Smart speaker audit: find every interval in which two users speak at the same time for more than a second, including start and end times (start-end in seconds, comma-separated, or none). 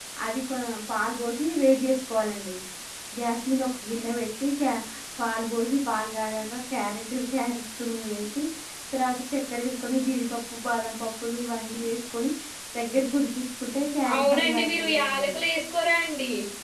14.1-15.4